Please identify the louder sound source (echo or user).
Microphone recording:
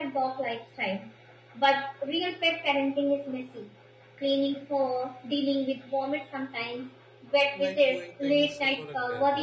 echo